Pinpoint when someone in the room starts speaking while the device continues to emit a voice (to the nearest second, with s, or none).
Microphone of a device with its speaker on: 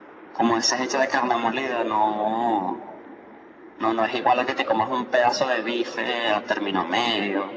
none